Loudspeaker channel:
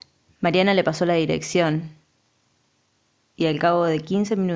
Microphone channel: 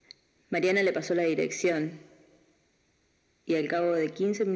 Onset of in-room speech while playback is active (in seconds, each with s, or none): none